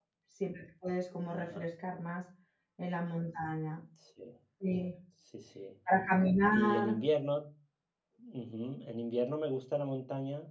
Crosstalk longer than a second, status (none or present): none